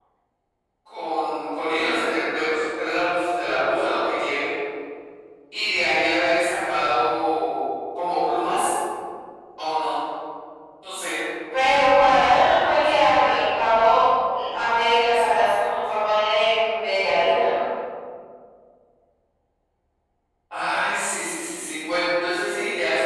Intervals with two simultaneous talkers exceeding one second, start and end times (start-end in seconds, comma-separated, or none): none